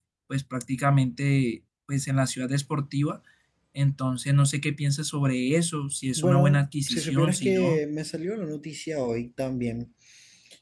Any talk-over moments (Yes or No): Yes